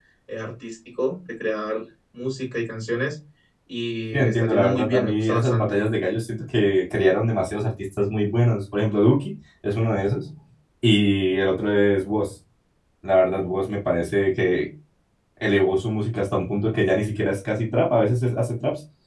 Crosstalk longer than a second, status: present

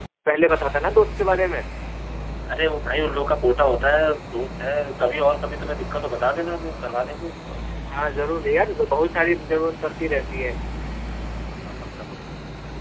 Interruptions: none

